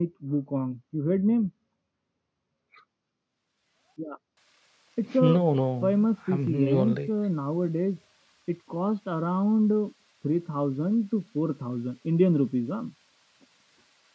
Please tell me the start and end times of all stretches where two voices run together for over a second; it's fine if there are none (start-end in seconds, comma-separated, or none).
5.8-7.1